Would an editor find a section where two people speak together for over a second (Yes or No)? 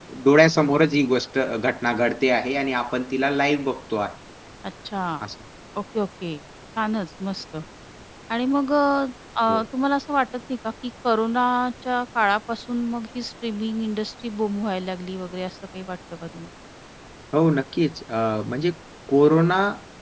No